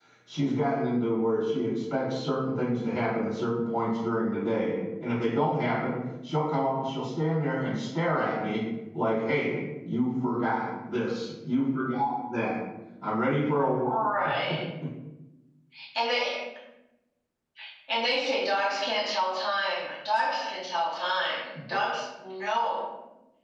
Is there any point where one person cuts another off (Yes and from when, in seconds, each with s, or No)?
No